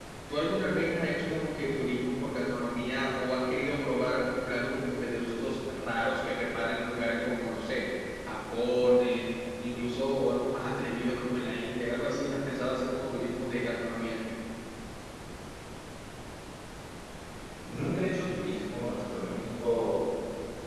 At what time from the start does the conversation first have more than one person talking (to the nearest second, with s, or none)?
none